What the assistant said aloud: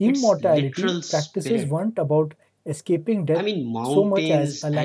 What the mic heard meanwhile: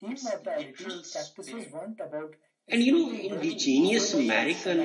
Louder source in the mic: user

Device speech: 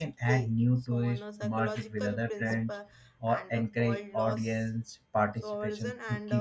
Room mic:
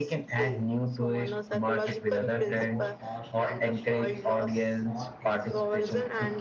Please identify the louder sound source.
echo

